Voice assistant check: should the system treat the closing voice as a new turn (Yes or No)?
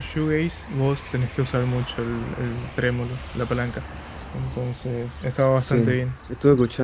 Yes